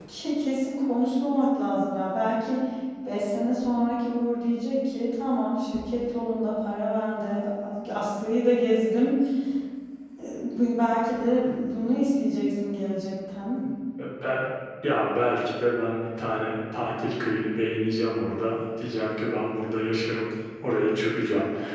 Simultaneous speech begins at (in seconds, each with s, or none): none